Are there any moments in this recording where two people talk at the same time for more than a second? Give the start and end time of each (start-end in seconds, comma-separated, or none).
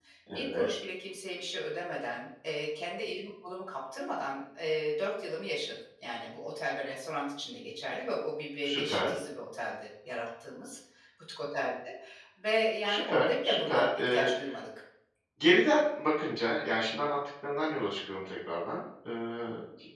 12.8-14.3